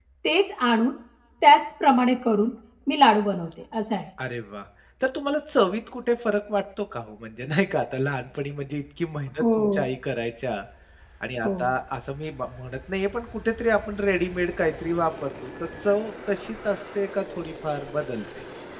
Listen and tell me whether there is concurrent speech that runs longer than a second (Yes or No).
No